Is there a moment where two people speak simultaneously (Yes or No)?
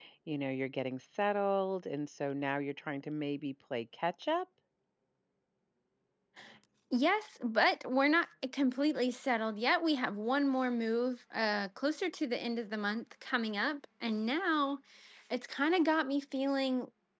No